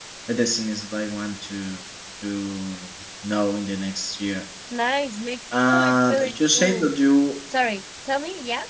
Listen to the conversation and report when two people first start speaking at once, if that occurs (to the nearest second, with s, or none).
6 s